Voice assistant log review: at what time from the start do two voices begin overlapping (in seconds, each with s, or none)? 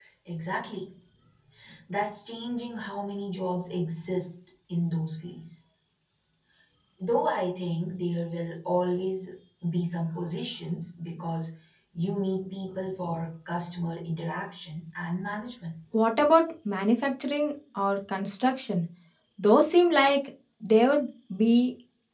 none